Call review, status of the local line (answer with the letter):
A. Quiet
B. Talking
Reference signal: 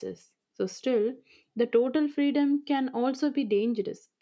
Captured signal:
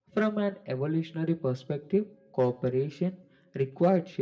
B